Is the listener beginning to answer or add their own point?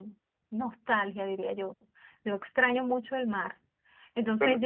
No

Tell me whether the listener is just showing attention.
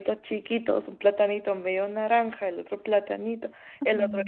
Yes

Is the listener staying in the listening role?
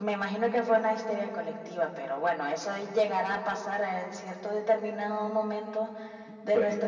Yes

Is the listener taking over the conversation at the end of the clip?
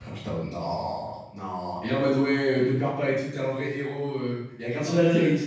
No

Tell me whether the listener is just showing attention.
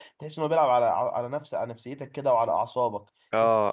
No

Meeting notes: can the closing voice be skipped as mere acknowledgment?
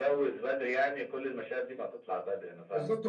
No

